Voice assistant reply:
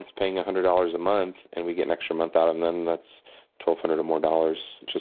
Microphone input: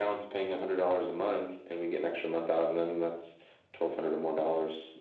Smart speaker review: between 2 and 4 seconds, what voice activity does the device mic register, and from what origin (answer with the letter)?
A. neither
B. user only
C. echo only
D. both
C